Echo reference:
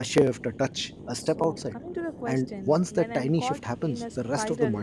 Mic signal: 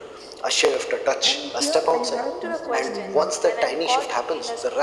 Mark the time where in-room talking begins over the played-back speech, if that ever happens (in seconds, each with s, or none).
1.2 s